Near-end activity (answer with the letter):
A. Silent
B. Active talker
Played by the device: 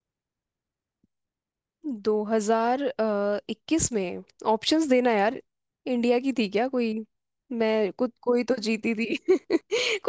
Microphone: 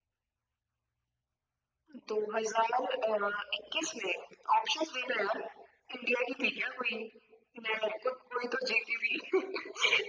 A